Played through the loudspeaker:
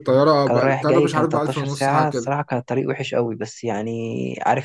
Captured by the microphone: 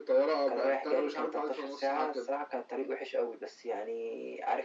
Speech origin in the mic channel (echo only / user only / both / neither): echo only